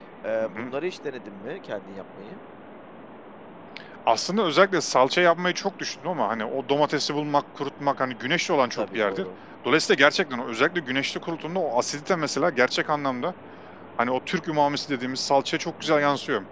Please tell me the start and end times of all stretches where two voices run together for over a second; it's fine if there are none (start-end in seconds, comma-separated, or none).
none